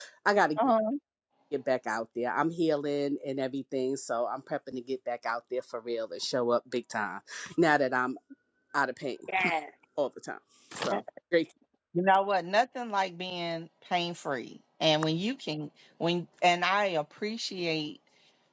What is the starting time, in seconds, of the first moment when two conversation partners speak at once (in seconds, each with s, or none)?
none